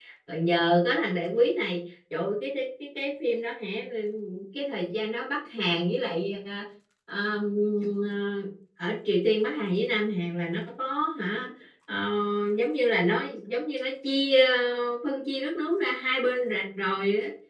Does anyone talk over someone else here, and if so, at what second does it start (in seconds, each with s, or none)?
none